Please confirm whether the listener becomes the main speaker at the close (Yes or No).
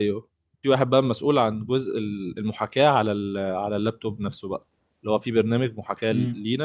No